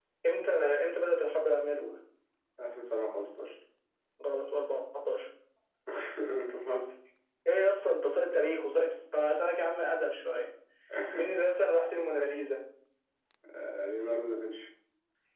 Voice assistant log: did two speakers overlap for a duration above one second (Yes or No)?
No